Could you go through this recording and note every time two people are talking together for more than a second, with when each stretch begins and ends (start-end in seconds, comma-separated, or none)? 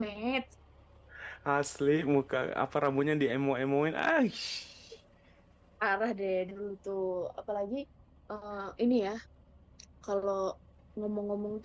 none